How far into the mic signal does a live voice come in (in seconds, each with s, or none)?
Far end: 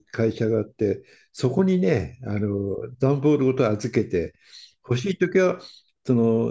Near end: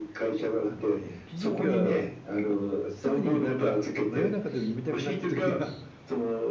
0.6 s